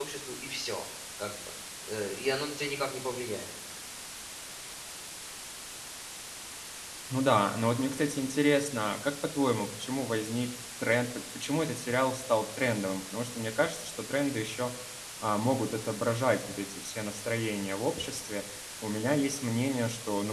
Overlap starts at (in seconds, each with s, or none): none